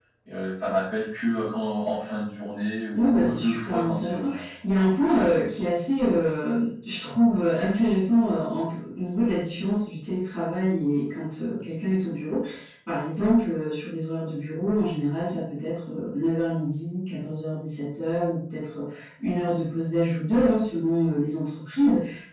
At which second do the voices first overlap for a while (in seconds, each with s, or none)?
2.9 s